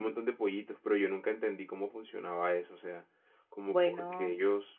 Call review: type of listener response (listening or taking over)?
listening